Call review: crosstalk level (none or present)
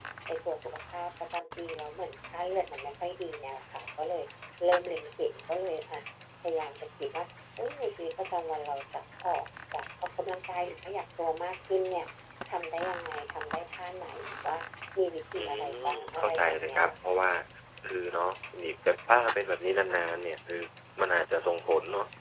present